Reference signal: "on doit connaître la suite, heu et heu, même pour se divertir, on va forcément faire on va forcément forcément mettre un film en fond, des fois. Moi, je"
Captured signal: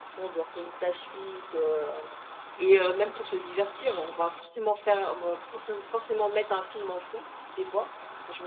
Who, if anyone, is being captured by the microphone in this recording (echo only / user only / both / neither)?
echo only